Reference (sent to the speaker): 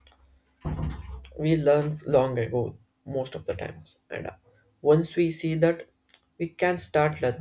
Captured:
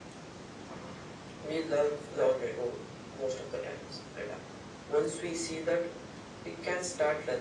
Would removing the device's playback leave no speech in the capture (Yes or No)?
Yes